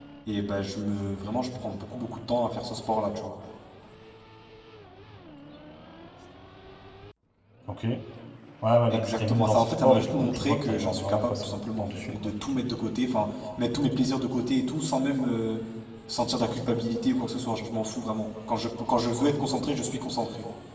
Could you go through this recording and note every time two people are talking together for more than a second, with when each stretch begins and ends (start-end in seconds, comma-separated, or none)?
8.9-12.3